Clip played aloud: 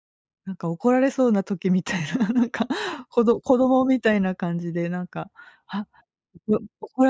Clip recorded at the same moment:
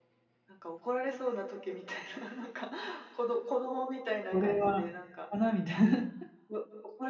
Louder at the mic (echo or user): user